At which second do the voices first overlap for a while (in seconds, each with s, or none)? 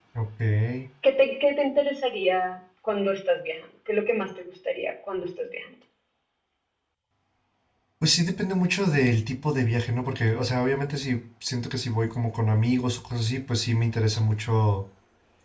none